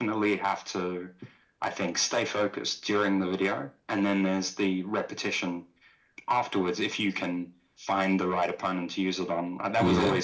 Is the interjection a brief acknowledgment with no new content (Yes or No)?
Yes